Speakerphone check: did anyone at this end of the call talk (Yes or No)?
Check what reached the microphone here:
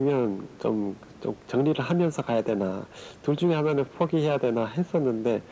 No